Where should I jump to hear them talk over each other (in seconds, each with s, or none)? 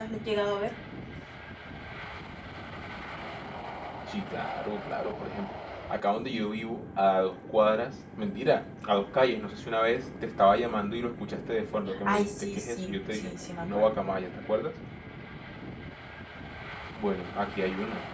11.9 s